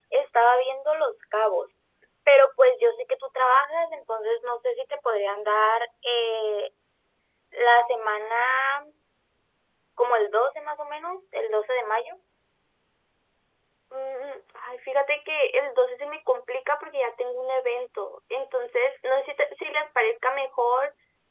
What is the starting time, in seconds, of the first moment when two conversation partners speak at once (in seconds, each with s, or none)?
none